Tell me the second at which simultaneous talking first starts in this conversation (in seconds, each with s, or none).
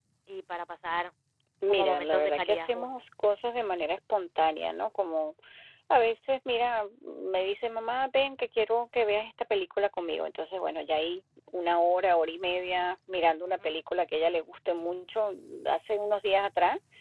1.7 s